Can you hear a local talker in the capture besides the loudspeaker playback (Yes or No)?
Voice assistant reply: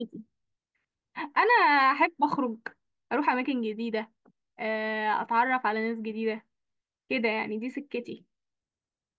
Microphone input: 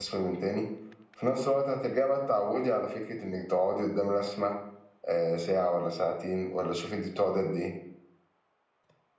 Yes